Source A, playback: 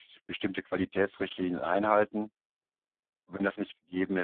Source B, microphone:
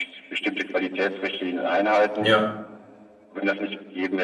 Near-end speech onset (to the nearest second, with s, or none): 2 s